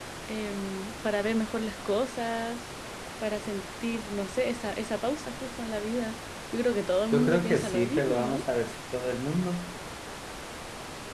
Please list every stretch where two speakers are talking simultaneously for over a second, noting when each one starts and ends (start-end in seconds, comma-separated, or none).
7.1-8.4